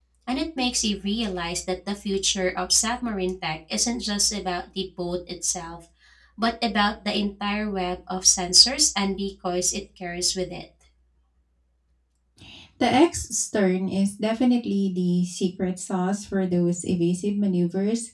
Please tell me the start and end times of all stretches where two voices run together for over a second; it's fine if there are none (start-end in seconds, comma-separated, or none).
none